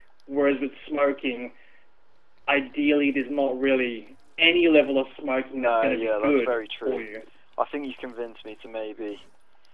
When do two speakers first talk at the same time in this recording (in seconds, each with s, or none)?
5.6 s